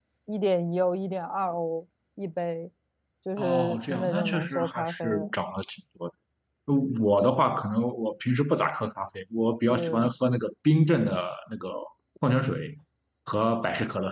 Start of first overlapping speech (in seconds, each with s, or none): 3.4 s